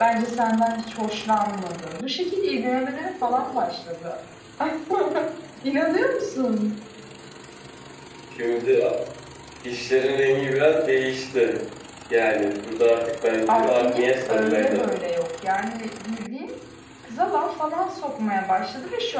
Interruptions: present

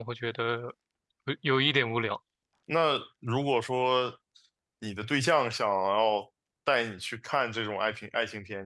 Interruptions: none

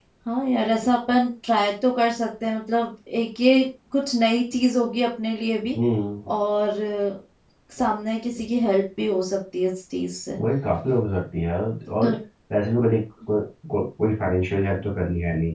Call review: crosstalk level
none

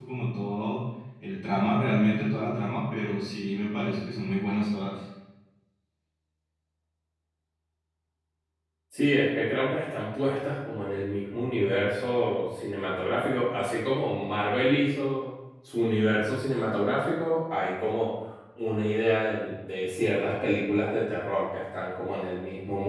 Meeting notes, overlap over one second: none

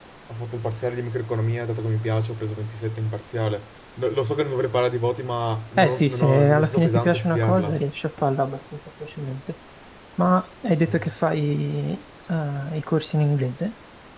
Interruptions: present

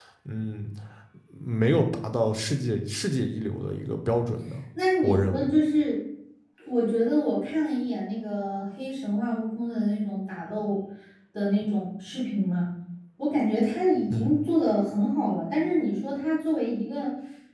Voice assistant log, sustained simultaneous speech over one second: none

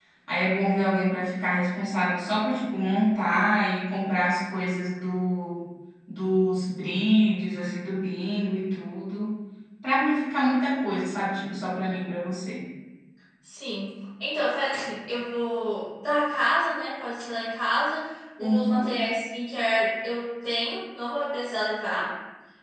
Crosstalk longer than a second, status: none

